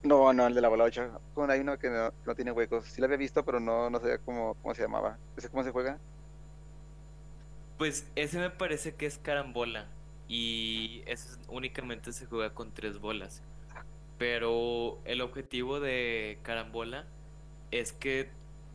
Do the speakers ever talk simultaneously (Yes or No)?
No